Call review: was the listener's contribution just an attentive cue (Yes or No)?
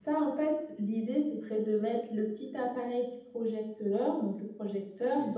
Yes